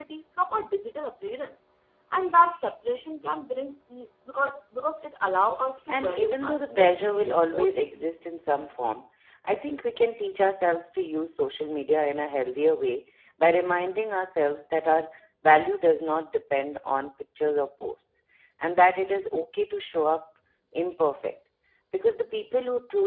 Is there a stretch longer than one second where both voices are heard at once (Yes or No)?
Yes